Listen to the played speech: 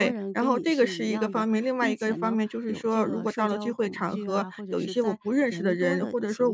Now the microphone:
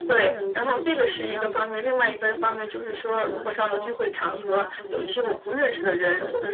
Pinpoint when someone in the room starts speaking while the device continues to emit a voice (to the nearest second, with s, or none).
none